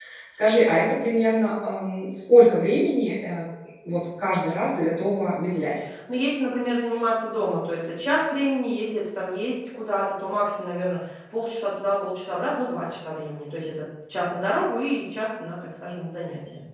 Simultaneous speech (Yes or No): No